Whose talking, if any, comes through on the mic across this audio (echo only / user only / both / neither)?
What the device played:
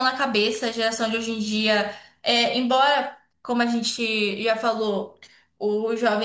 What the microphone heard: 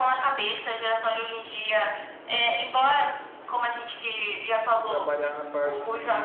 both